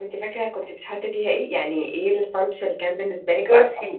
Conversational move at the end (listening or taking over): taking over